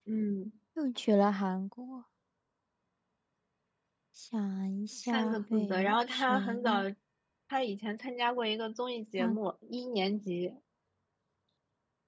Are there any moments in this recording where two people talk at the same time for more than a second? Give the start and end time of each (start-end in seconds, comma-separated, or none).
5.0-6.8